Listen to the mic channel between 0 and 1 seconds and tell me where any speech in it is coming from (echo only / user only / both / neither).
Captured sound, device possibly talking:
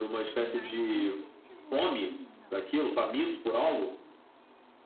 both